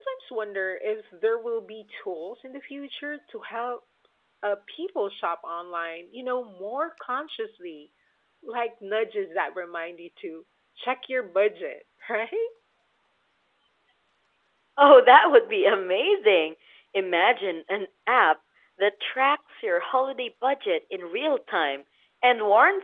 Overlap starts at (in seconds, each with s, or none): none